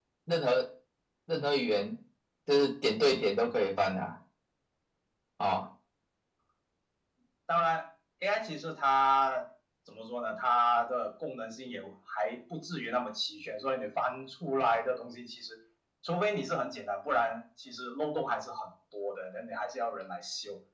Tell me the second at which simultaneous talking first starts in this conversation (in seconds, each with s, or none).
none